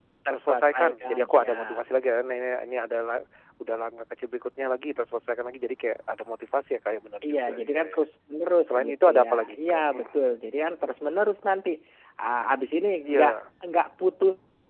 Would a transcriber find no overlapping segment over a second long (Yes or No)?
No